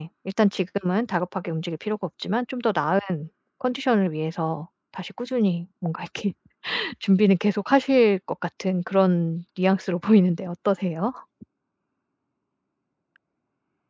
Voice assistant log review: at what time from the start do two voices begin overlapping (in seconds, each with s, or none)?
none